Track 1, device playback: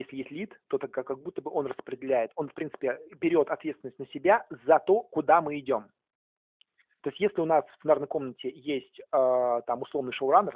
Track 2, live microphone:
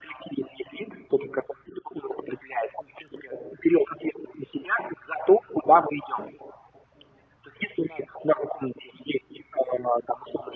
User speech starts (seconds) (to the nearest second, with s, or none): none